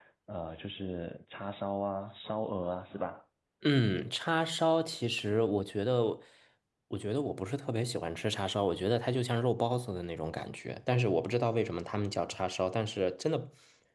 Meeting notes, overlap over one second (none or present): none